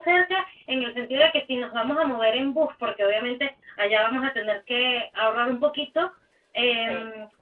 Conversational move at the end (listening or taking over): listening